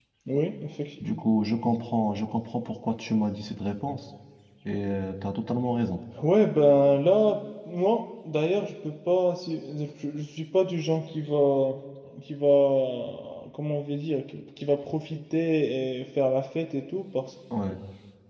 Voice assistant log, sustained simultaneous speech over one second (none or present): none